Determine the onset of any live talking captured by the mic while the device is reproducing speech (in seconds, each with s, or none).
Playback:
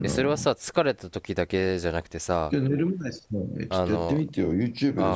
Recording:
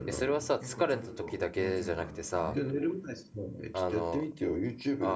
0.6 s